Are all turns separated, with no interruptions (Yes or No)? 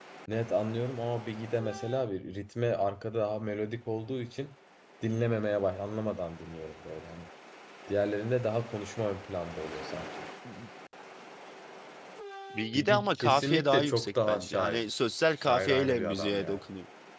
No